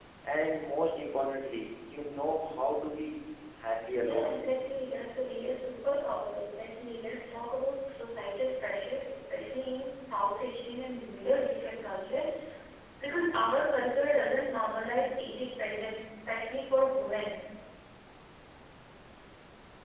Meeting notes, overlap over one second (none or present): none